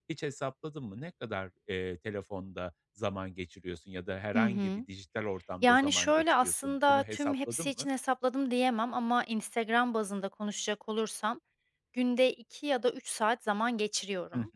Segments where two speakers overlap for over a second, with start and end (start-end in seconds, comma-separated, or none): 5.6-7.9